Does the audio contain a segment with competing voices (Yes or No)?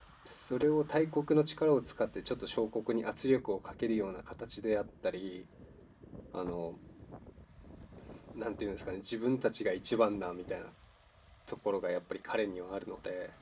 No